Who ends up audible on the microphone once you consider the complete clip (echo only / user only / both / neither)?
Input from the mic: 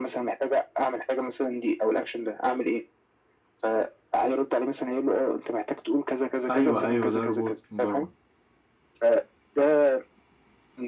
both